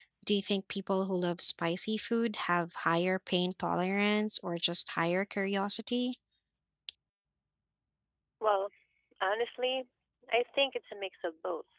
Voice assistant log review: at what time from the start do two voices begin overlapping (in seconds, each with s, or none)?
none